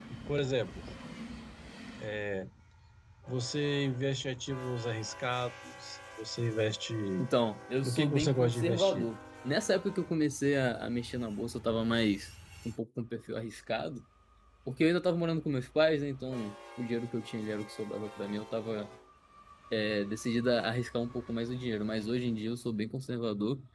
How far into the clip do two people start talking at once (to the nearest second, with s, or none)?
8 s